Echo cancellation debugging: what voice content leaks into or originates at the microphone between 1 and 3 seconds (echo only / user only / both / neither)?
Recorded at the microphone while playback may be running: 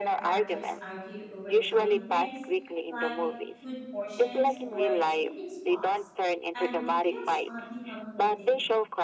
both